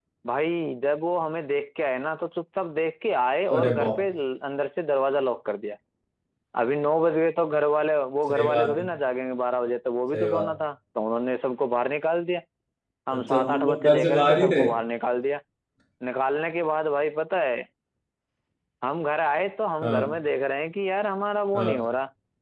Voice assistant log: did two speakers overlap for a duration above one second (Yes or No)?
Yes